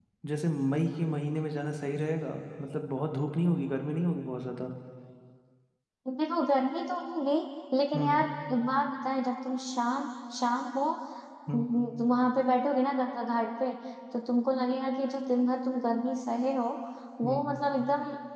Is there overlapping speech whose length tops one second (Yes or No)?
No